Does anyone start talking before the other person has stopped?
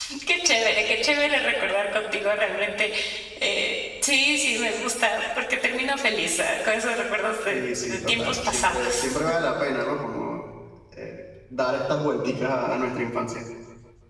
Yes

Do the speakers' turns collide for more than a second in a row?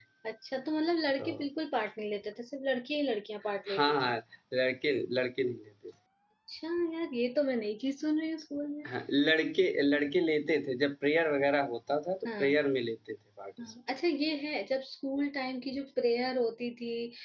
No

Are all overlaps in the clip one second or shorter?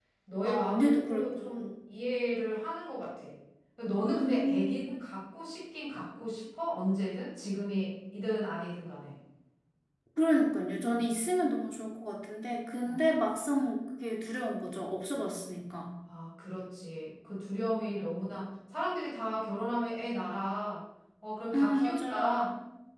No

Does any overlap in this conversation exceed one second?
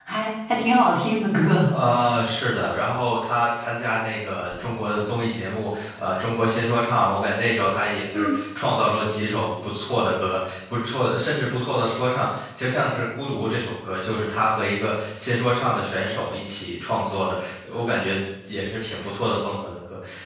No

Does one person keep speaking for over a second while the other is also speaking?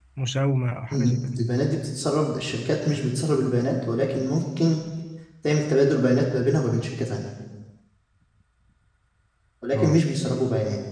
No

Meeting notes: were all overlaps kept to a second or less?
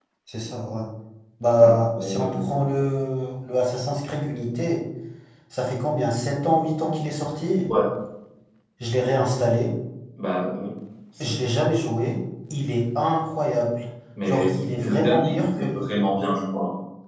No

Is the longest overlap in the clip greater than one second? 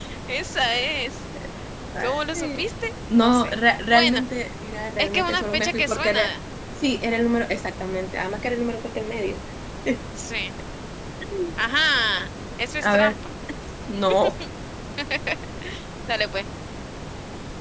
Yes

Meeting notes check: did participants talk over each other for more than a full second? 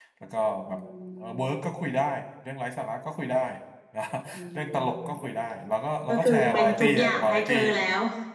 Yes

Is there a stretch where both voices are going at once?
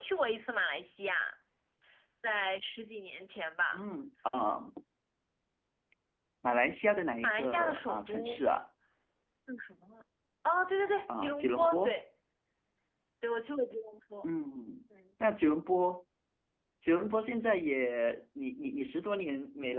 Yes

